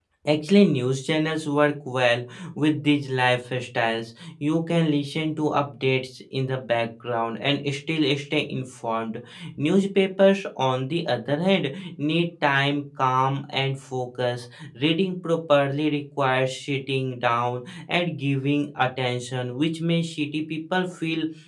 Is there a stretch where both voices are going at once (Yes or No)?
No